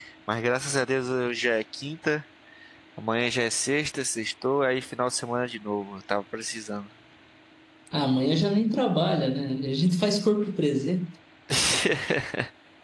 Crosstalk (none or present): none